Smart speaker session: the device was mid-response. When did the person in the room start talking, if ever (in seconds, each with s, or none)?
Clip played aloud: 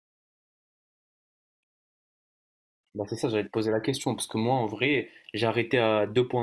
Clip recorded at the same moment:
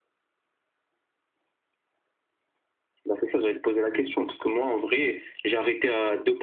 none